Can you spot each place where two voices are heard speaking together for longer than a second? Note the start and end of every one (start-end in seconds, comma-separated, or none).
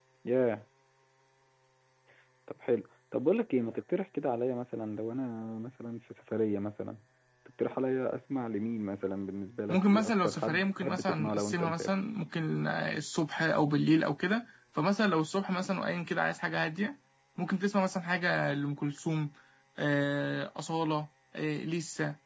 9.7-11.9